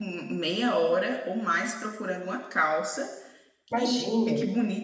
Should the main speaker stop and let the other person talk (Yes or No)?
No